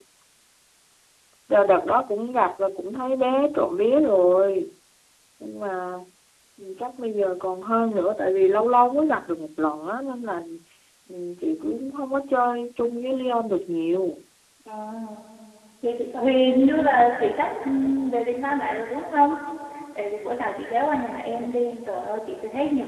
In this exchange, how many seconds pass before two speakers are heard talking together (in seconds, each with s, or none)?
none